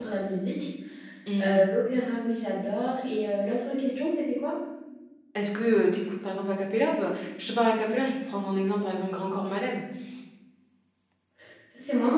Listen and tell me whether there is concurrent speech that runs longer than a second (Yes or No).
No